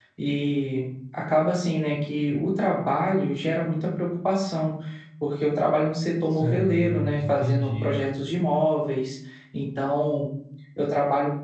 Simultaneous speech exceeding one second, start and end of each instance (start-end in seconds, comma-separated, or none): 6.3-8.0